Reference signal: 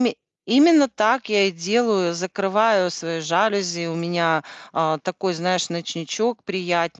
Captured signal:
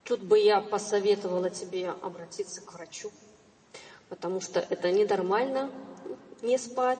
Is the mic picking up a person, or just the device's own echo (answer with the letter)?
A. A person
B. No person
A